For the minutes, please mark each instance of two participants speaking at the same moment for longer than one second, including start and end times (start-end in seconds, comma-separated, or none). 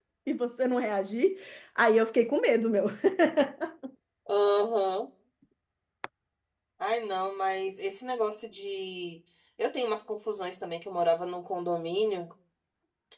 none